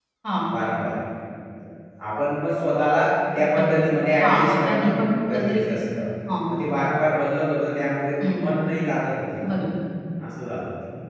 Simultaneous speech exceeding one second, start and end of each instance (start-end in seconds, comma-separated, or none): 4.2-5.6